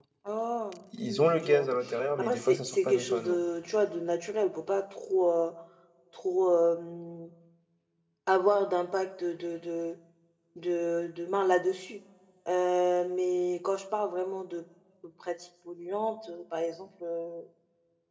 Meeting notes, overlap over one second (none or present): present